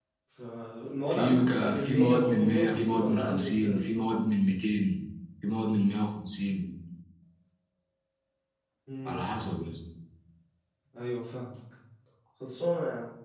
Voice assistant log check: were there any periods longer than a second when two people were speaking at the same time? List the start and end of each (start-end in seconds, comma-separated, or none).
1.1-3.8